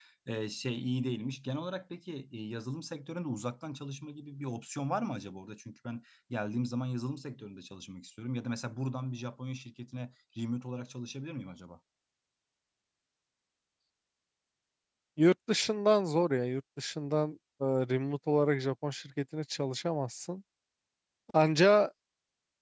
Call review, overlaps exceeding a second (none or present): none